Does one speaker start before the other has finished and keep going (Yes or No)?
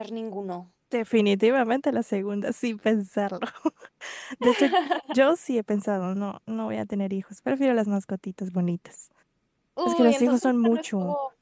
Yes